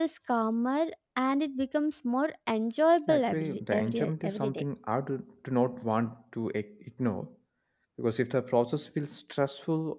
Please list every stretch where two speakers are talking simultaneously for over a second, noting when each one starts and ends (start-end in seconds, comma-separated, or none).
3.1-4.6